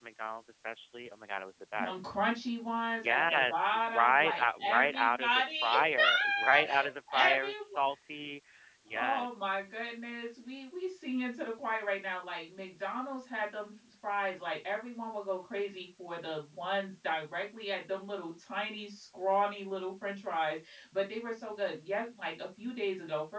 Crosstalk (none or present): present